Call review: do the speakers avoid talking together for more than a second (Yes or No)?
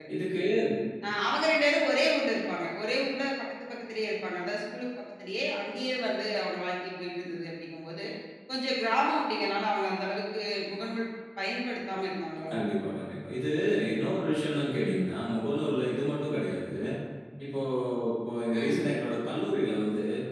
Yes